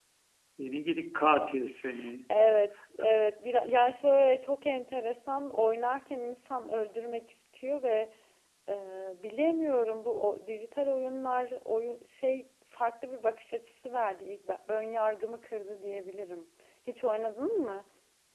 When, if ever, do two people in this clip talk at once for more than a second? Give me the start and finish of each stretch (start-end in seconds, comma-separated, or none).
none